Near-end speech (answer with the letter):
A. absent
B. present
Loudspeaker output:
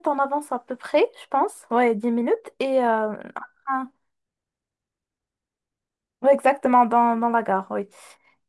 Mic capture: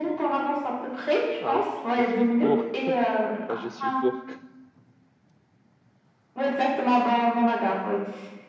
B